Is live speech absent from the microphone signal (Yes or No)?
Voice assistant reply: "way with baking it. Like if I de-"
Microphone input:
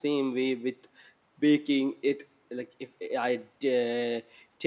Yes